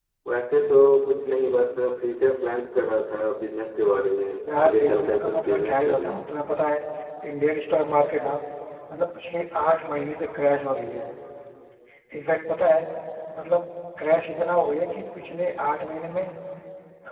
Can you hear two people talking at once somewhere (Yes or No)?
Yes